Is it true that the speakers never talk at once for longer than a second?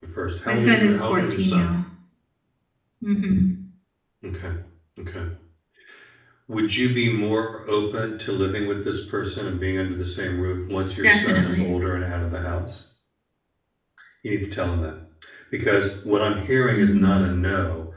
No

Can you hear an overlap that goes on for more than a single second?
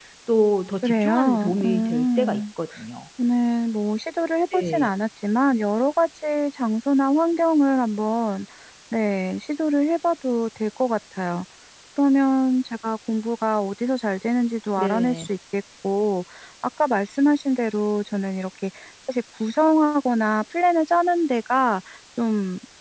Yes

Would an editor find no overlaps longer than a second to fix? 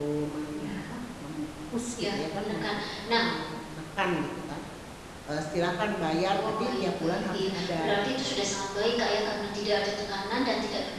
No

